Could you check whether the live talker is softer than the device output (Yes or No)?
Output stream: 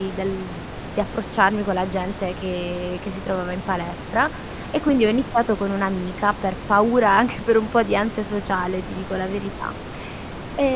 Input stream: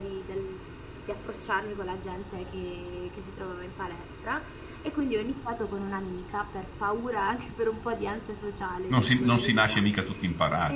No